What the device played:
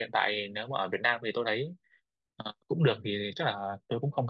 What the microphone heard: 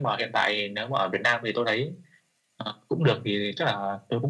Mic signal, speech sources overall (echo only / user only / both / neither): echo only